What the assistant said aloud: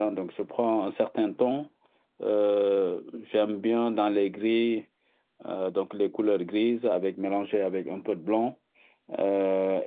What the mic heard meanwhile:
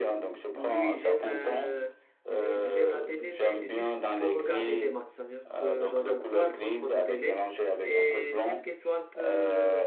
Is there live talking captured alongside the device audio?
Yes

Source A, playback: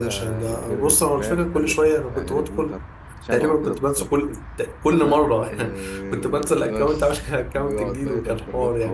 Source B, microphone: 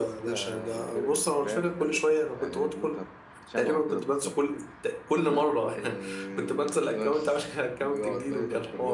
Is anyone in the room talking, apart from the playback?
No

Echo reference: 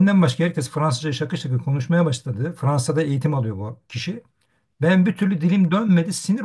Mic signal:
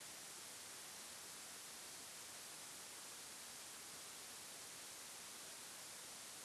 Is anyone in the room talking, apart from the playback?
No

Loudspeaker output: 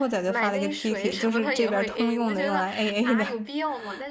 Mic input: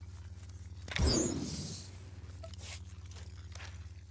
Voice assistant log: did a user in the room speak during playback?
No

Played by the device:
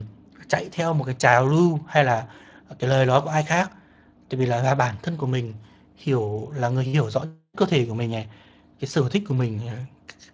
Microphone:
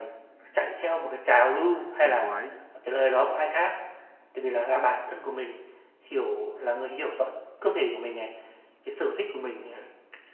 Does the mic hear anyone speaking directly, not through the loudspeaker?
Yes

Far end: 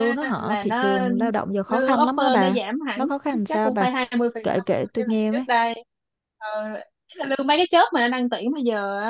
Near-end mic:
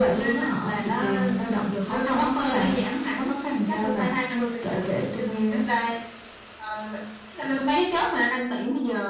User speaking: No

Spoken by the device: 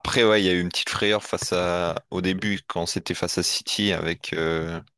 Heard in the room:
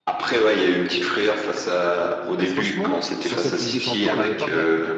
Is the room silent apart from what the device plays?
No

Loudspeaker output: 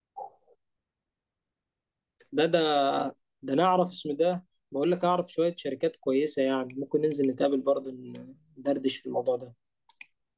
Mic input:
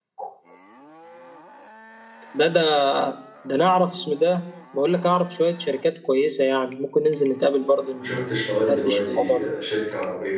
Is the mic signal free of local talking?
No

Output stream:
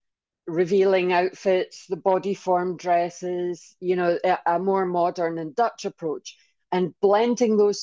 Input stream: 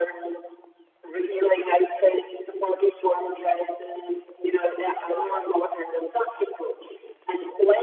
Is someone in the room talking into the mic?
Yes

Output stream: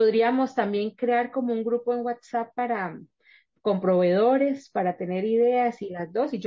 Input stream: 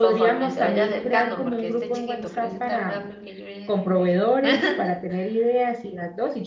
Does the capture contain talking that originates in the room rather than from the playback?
Yes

